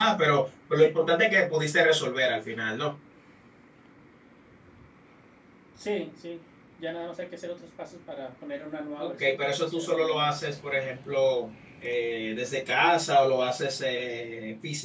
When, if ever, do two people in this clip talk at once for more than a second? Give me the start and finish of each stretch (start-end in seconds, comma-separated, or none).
9.0-10.6